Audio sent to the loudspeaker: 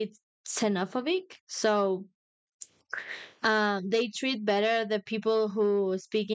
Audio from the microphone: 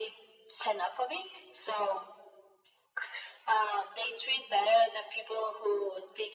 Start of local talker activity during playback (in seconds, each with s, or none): none